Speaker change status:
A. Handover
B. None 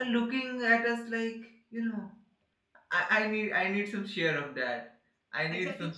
A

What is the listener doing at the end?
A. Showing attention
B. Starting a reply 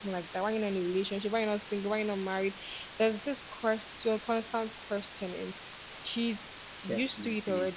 A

